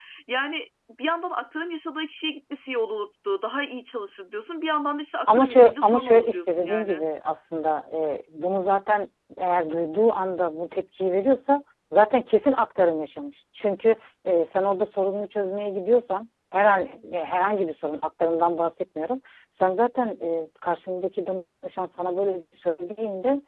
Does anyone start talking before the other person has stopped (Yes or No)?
Yes